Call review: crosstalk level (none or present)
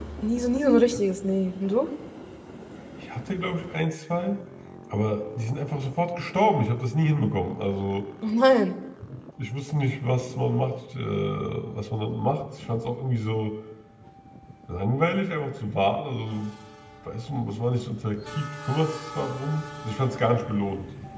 none